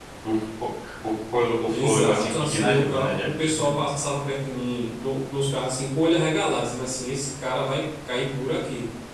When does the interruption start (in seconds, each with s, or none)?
1.7 s